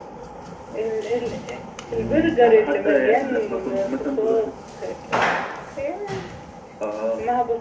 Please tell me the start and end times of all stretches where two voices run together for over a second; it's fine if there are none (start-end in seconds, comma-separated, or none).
2.0-4.4